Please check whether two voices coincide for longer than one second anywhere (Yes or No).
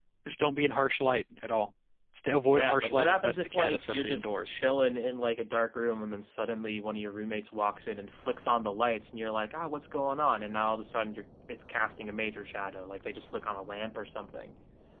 Yes